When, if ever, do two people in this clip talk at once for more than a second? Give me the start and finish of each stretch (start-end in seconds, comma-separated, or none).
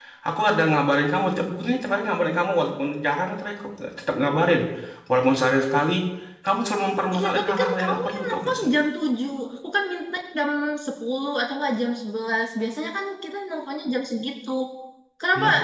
7.1-8.7